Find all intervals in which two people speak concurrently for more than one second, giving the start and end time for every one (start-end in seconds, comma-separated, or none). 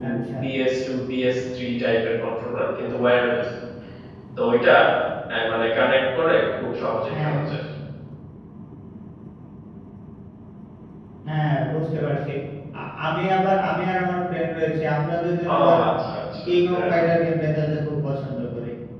none